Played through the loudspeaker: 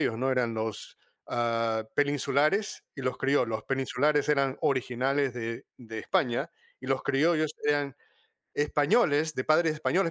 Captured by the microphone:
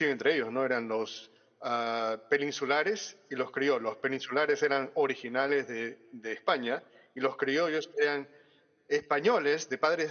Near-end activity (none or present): none